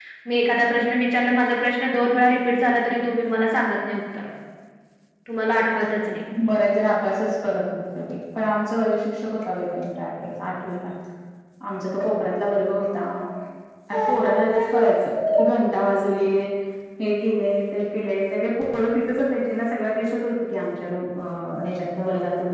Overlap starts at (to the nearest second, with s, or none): none